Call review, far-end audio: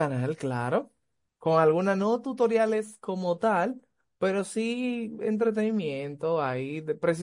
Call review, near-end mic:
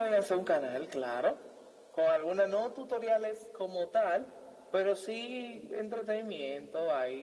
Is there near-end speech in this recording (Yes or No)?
No